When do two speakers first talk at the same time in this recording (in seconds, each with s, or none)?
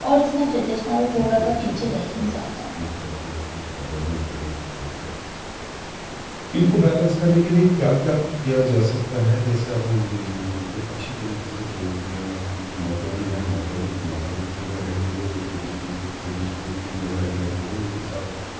1.0 s